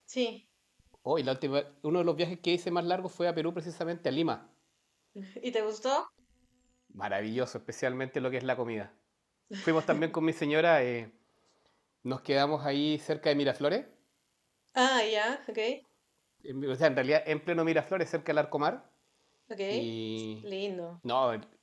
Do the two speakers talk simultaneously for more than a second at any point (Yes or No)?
No